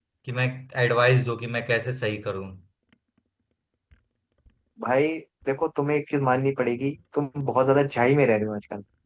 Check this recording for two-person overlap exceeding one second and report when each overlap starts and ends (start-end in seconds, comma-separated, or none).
none